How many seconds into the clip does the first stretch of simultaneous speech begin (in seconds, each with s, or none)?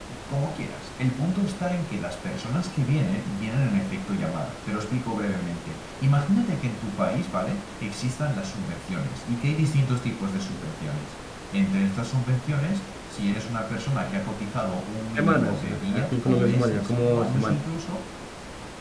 15.2 s